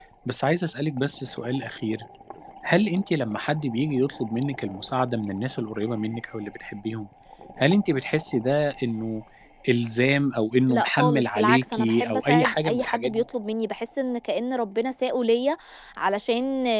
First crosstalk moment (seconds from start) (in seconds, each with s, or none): 10.7 s